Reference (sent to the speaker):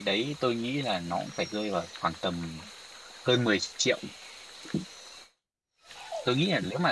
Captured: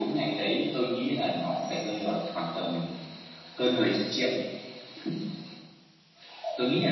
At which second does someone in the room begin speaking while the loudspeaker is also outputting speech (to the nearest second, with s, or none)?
none